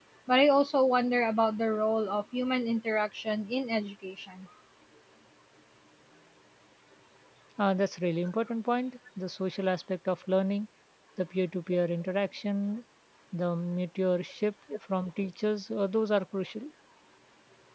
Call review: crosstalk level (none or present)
none